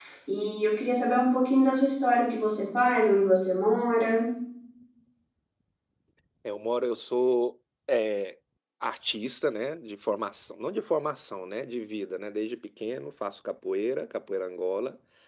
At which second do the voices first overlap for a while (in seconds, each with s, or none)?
none